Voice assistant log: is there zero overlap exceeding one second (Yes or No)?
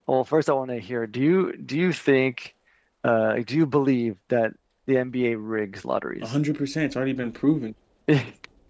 Yes